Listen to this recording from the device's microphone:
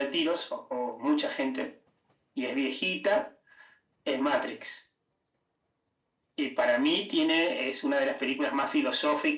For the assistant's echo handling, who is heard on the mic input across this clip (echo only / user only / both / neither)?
echo only